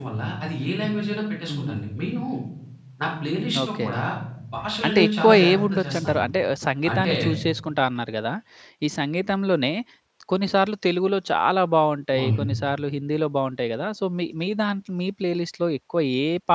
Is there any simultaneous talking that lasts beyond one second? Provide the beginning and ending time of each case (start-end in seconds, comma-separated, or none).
4.8-6.2